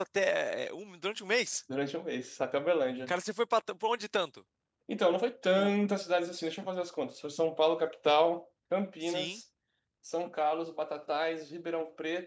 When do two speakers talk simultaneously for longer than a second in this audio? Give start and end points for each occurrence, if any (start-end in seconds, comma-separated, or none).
none